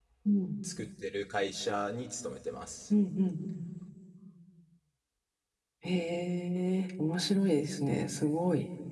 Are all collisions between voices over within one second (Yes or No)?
Yes